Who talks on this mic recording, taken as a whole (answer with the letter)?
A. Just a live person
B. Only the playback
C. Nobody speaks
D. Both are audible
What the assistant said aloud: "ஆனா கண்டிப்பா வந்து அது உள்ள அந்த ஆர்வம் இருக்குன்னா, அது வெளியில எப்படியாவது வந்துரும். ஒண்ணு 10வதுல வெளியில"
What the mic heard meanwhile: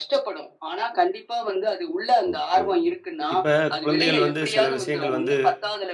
D